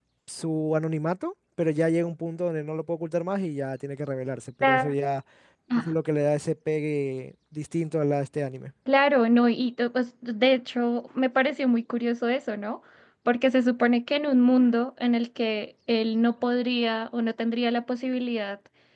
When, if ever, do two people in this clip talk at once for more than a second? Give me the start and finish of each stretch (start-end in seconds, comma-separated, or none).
none